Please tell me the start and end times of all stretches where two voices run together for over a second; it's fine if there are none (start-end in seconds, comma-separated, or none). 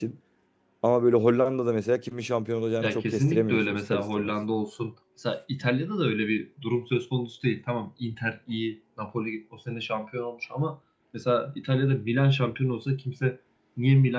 2.8-4.3